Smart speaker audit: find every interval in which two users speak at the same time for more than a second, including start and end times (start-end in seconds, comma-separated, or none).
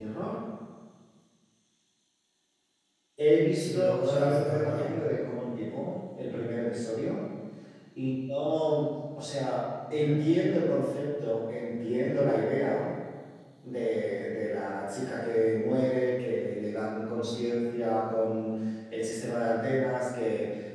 3.5-4.9